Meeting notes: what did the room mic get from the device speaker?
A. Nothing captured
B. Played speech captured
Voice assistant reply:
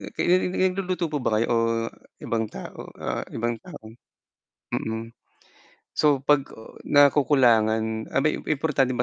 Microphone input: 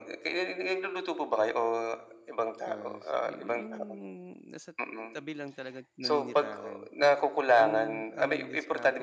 B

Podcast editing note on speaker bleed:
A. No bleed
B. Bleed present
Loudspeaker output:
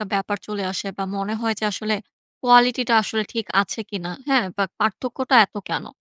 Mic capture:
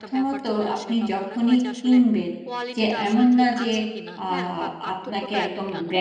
B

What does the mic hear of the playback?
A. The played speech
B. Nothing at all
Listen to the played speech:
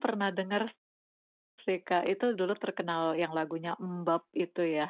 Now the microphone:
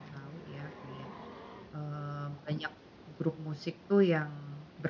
B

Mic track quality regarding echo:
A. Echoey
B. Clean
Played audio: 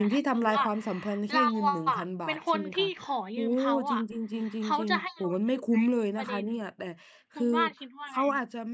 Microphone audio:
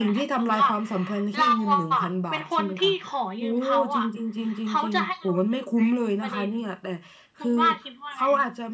A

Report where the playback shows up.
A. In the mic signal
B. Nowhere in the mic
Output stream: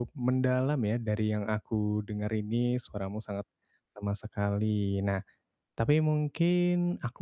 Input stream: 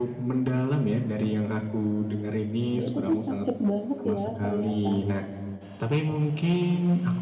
A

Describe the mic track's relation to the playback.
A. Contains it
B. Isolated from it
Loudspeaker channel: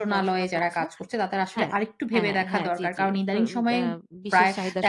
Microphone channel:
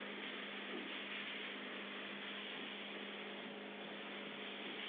B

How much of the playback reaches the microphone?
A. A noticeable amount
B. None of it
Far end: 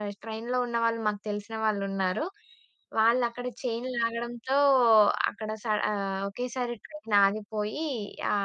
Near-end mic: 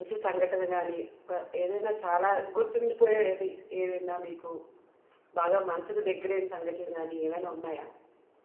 B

